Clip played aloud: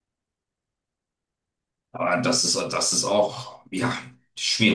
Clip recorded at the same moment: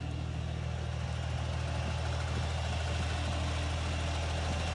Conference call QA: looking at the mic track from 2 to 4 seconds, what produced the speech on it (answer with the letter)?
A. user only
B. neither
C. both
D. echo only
B